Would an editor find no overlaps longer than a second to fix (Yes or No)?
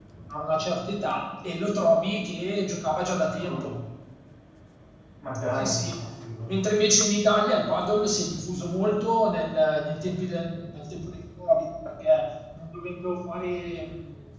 Yes